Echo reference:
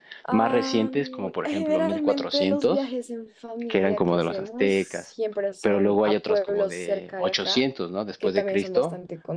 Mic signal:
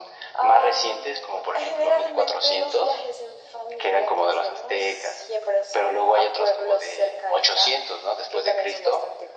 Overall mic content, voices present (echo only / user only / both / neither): echo only